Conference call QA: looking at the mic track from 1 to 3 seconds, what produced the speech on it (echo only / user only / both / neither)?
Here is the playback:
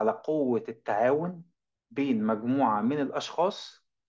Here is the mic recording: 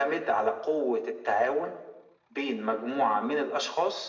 echo only